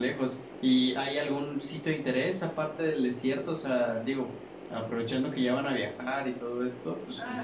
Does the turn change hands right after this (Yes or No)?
Yes